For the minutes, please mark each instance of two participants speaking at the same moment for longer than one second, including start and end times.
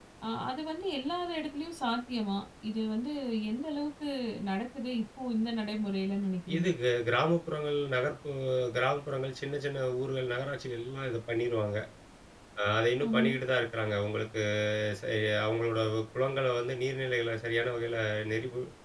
none

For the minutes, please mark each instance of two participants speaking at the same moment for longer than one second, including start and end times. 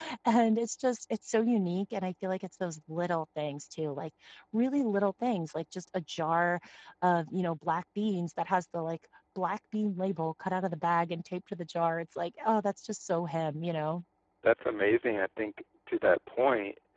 none

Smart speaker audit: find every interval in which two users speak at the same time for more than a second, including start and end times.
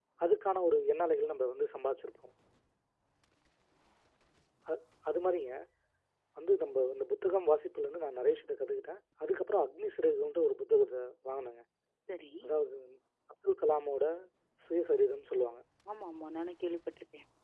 none

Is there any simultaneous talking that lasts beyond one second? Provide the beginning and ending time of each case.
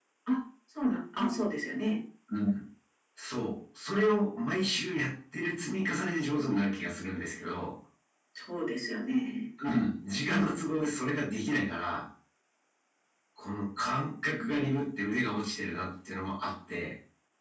none

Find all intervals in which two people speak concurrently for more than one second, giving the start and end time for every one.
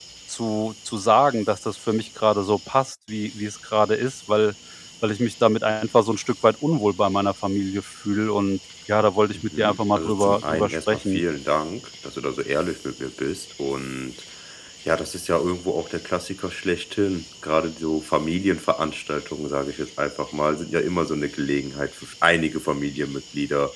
9.3-11.2

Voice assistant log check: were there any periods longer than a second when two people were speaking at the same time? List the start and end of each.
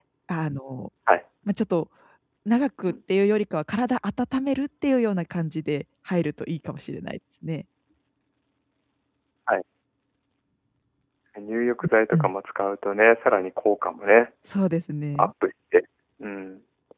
none

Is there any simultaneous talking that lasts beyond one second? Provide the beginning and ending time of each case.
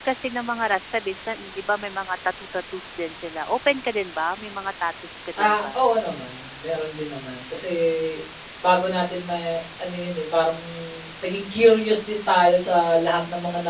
none

